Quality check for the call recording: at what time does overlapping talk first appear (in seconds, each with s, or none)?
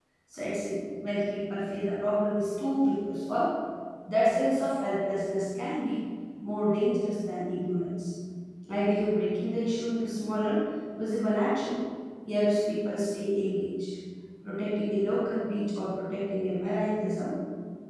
none